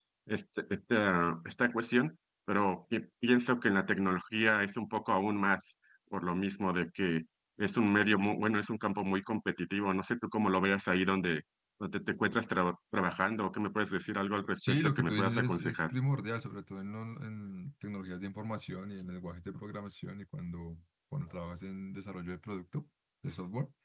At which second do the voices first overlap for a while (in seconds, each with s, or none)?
14.6 s